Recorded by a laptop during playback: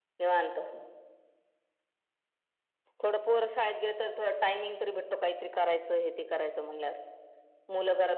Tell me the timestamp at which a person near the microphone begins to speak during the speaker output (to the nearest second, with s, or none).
none